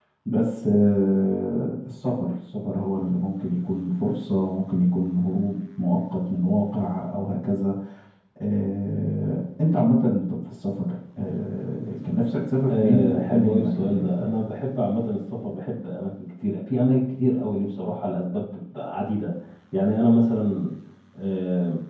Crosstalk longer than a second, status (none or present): present